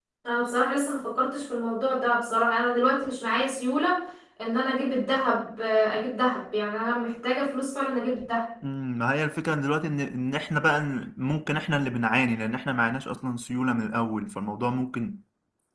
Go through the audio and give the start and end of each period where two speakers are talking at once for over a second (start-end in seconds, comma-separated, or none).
none